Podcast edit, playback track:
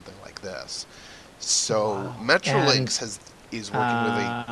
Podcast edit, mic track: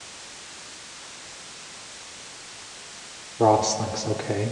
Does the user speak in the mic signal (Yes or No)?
Yes